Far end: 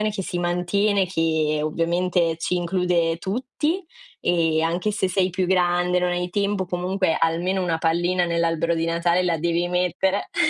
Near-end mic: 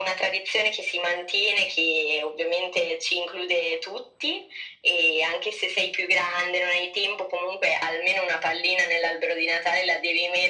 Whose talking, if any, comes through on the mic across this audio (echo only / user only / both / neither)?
echo only